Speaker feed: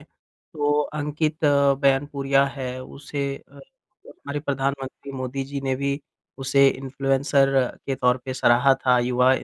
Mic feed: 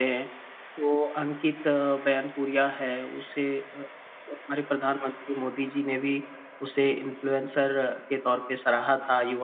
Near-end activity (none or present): none